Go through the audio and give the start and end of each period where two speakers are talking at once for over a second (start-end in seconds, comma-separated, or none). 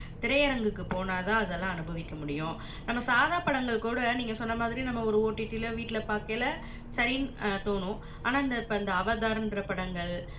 none